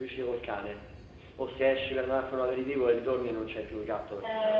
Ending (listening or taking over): taking over